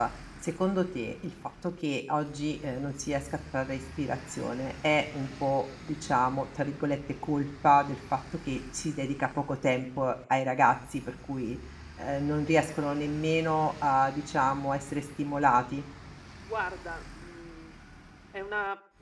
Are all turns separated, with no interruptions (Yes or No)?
Yes